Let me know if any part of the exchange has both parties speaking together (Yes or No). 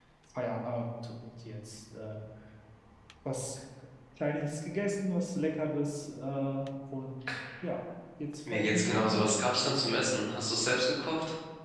Yes